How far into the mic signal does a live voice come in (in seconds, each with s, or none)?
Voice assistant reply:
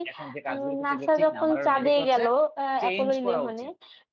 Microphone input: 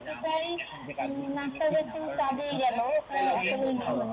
3.1 s